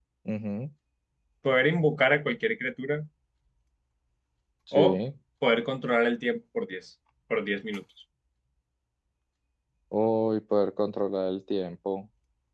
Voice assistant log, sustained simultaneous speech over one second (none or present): none